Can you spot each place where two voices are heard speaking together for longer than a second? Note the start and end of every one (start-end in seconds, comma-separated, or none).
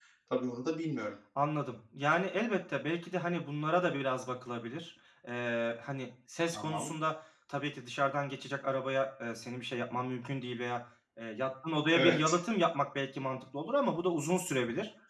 none